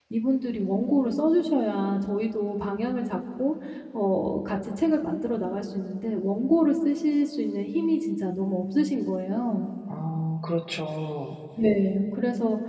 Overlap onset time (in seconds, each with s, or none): none